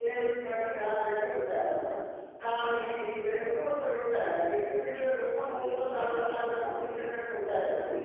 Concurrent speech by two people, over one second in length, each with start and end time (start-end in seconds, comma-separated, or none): 5.5-7.1